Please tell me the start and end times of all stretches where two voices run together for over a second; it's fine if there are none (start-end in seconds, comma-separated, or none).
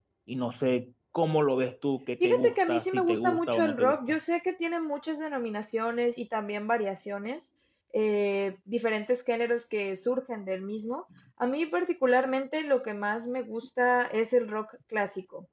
2.2-4.2